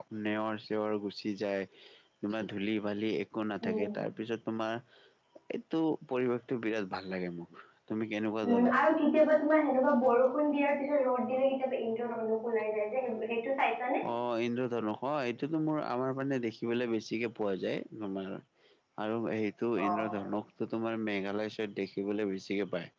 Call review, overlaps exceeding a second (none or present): none